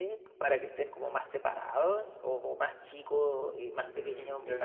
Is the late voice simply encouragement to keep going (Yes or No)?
No